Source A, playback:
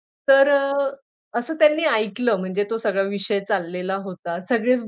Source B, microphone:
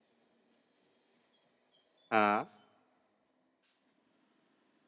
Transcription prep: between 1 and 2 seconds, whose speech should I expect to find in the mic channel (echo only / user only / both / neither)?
neither